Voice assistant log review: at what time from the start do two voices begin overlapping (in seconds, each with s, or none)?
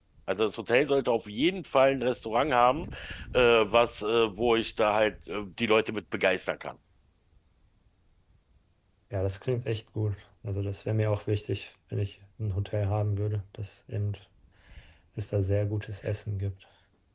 none